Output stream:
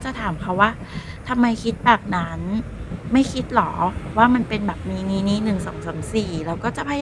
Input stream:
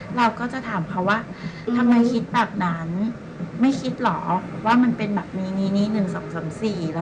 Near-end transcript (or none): อือฮึ